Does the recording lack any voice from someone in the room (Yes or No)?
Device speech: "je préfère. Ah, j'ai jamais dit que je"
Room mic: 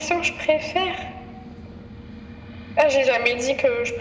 Yes